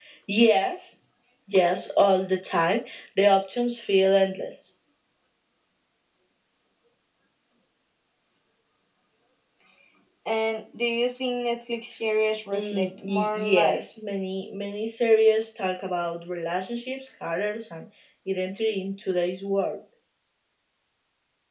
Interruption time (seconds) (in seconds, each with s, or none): 12.5 s